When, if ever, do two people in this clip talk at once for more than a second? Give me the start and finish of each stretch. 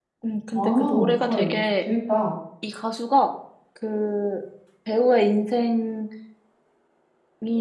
0.5-1.8

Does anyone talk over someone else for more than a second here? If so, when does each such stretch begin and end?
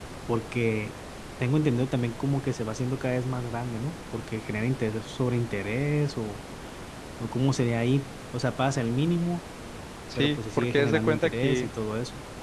10.2-11.7

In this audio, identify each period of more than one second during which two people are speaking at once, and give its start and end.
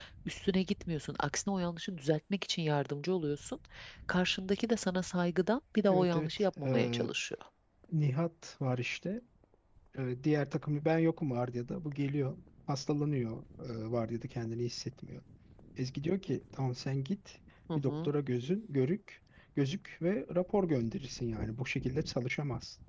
5.9-7.1

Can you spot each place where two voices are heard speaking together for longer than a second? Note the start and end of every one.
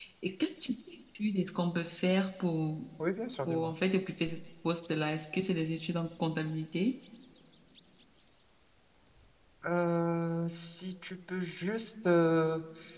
none

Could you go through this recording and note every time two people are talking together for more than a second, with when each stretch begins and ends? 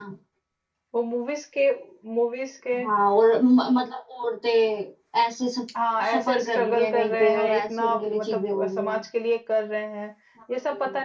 6.1-9.0

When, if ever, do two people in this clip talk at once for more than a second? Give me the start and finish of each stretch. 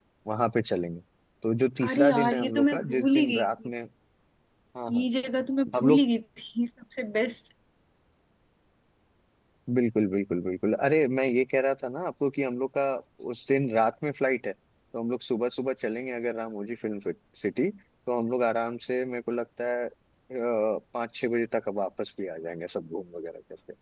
1.8-3.7

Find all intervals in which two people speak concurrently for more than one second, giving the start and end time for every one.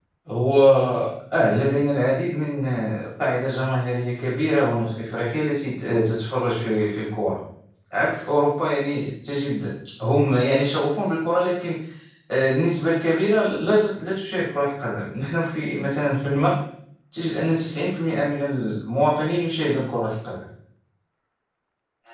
none

